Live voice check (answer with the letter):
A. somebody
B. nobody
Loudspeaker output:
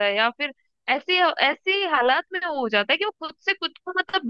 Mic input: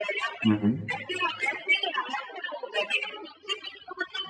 A